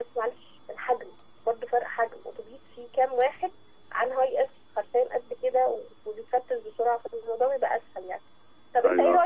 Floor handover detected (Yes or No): No